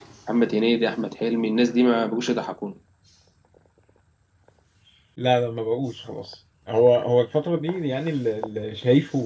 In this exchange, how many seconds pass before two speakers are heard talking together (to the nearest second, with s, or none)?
none